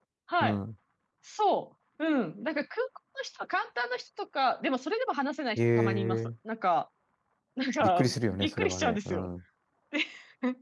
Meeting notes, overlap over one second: present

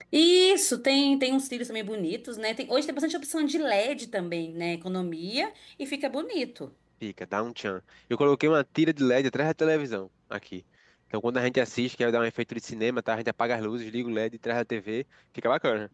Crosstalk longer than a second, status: none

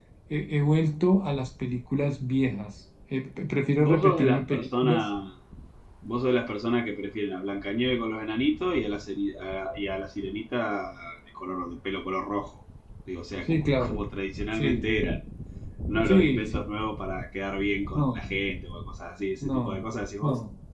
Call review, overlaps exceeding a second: present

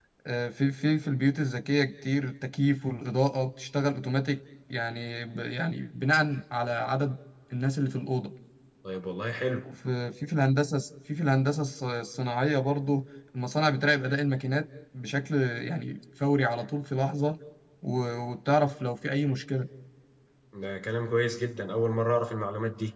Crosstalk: none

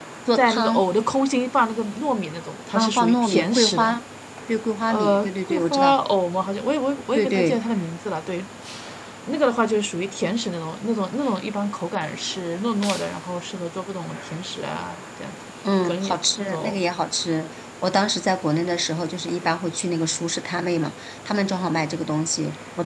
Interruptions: present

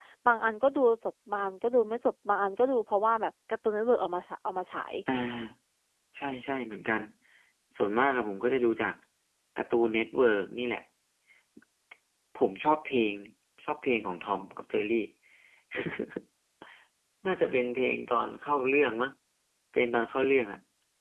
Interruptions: none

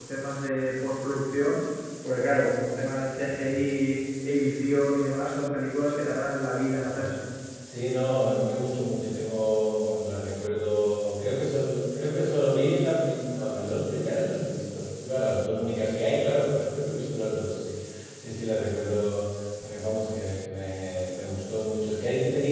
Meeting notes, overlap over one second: none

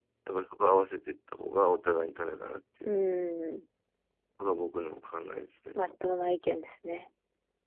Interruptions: none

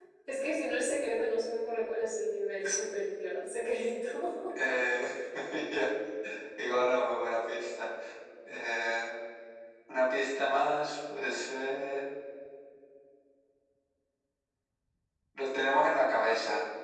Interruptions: none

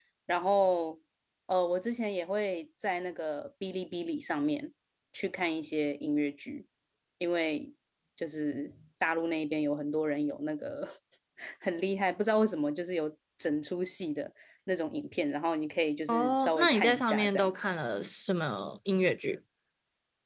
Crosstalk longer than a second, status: present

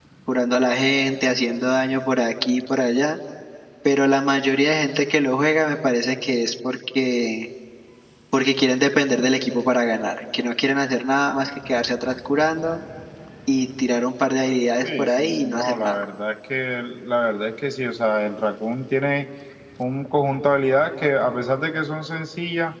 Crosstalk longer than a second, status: present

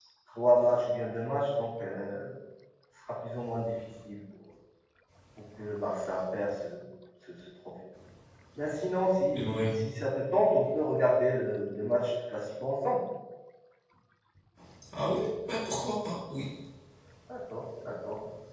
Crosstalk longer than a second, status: none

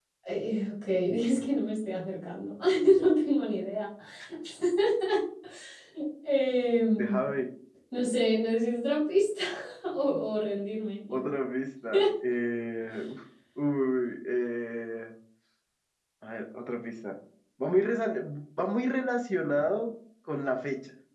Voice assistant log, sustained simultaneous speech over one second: none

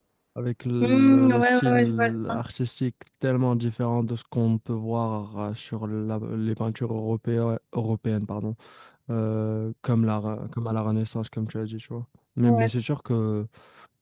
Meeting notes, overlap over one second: present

